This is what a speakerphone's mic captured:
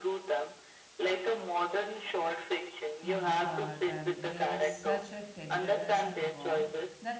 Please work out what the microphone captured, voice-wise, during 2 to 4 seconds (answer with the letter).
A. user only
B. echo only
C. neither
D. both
D